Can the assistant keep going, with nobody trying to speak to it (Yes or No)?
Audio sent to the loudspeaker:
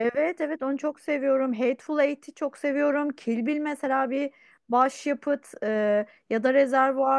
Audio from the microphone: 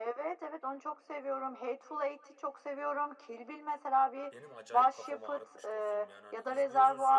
No